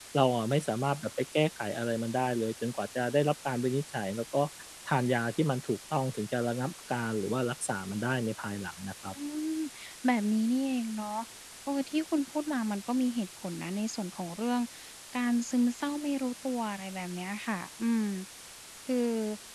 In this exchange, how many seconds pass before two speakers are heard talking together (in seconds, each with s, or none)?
none